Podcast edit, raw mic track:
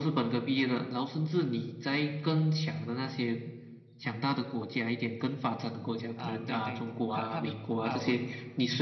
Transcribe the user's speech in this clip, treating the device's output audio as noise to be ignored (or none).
啊！对对，他他们啊，我